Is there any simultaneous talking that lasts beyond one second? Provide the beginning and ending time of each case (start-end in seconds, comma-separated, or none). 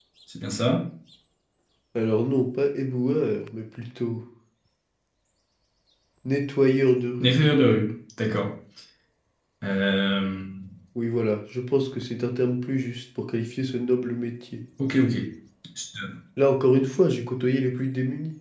none